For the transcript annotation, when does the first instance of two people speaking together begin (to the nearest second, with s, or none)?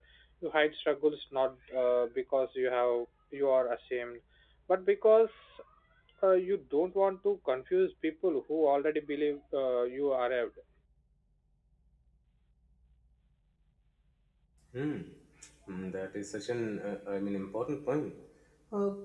none